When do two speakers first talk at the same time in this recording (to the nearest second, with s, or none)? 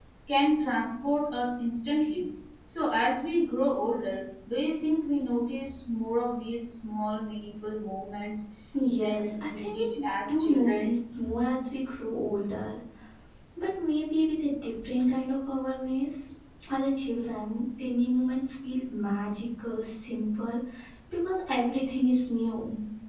9 s